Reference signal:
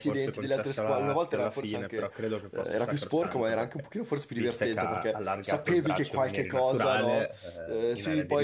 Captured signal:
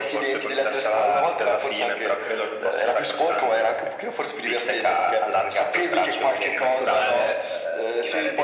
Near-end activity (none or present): none